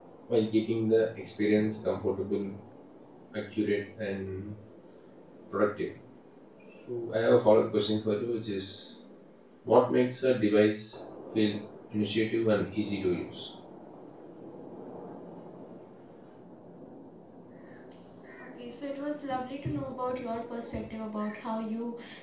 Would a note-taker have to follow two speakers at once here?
No

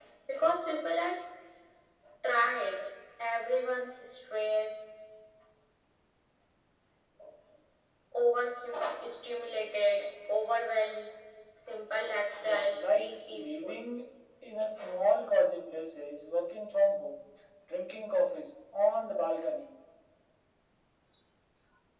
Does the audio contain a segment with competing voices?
Yes, from 12.4 s

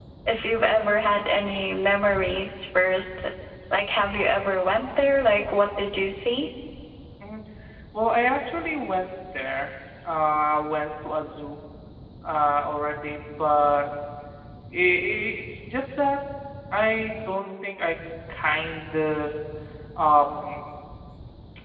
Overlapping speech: No

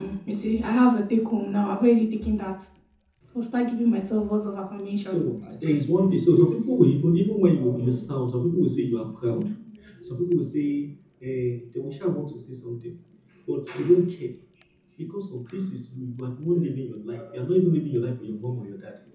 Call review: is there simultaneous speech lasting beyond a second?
No

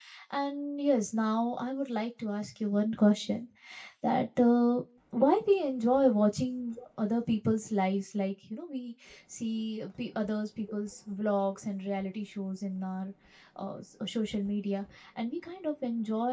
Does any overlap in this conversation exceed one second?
No

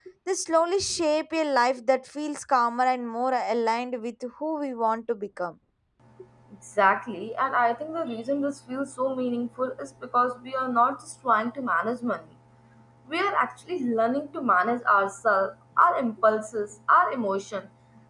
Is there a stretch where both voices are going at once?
No

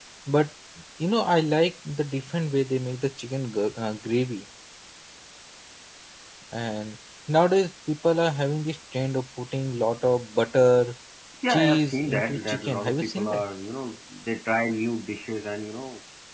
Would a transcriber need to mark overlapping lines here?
Yes, from 11.5 s

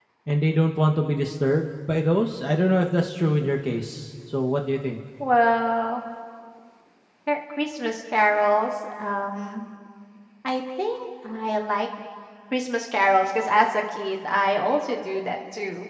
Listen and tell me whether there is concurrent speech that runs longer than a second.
No

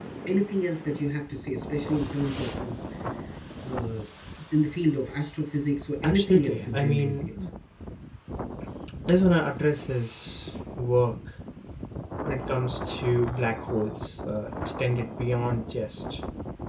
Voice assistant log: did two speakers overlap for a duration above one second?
Yes, from 6.0 s

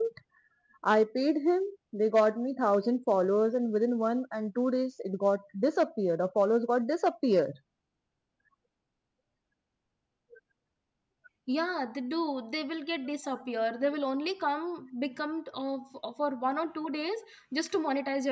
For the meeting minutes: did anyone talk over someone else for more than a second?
No

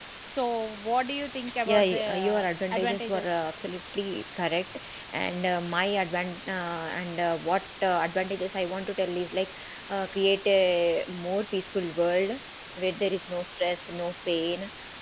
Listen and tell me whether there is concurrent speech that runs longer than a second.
Yes, from 1.4 s

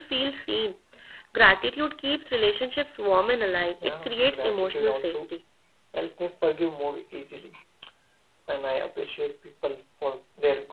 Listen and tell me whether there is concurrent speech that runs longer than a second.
Yes, from 3.8 s

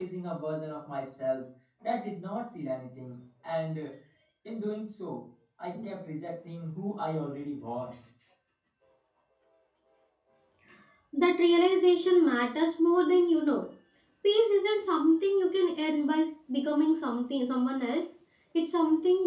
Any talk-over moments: No

